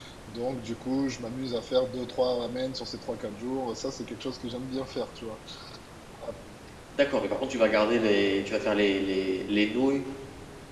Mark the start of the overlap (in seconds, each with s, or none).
none